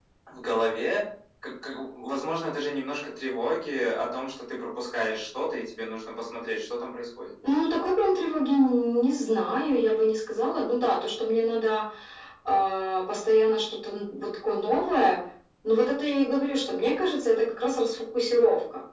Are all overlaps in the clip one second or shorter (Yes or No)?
Yes